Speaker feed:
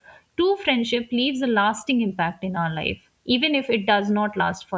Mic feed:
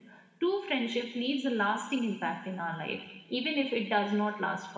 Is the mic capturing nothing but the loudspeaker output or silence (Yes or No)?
Yes